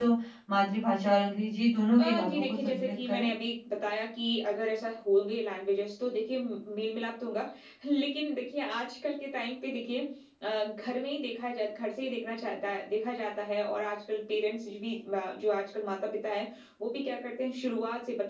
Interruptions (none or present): present